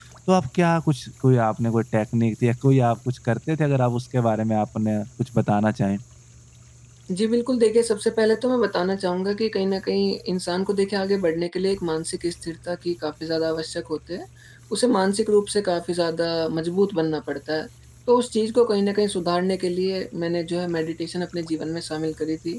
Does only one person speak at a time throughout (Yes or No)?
Yes